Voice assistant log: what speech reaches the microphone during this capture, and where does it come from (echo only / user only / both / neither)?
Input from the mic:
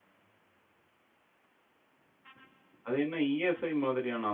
user only